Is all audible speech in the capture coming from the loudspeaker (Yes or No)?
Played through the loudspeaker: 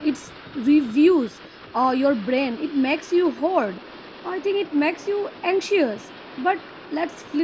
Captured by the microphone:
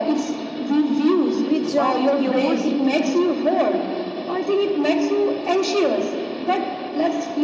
No